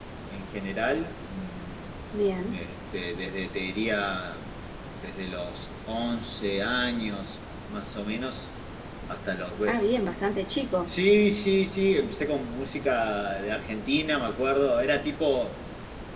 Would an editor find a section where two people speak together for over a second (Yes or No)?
No